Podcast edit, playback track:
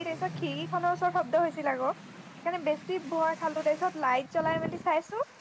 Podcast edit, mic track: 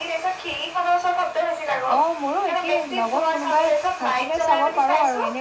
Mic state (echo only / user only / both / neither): both